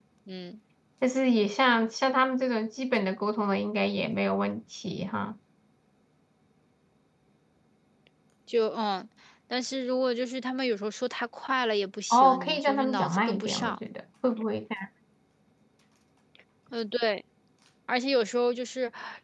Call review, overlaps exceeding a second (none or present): present